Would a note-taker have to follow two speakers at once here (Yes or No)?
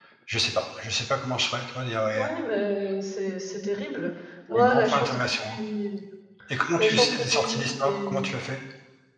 Yes